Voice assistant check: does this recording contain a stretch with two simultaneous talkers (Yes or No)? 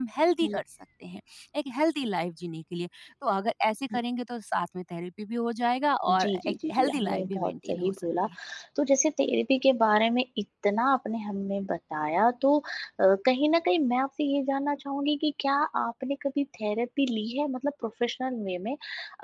Yes